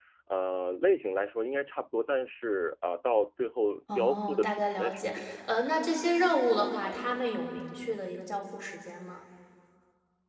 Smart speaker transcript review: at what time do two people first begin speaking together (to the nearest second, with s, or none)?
4 s